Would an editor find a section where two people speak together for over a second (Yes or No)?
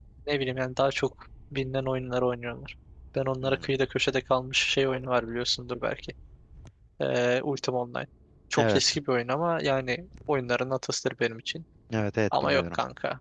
No